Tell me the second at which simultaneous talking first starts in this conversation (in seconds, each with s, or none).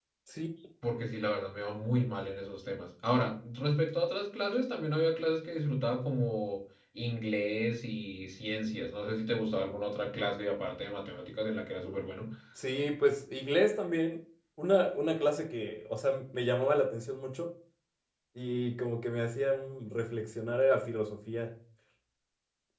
none